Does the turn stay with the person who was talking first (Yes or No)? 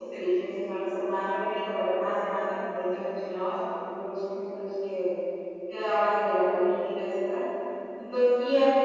Yes